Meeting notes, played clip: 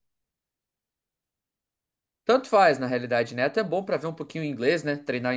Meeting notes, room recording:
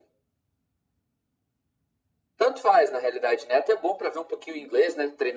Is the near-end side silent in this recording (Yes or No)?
Yes